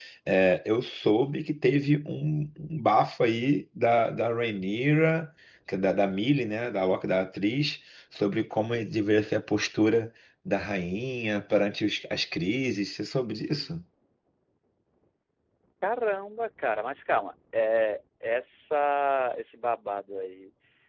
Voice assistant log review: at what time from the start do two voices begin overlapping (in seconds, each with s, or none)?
none